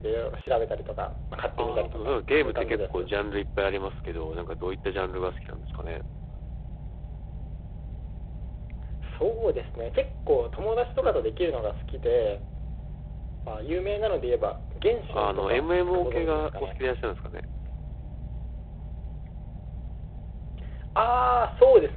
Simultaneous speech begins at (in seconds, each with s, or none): 1.6 s